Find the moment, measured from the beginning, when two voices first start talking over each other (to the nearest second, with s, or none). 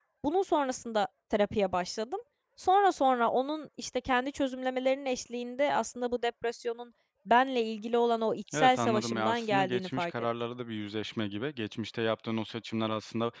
8 s